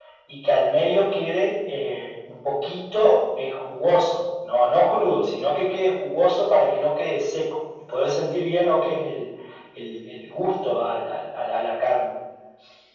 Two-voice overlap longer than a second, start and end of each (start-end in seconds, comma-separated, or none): none